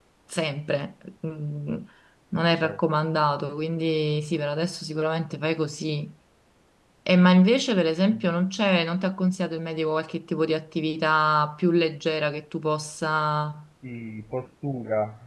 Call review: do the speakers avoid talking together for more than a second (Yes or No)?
Yes